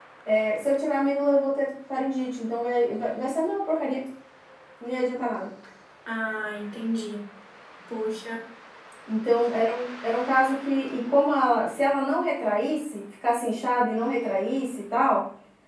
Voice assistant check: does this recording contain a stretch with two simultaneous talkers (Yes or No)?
No